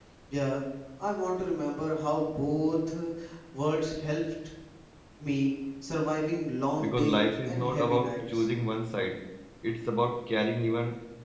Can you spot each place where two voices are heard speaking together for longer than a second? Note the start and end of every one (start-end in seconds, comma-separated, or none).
6.8-8.4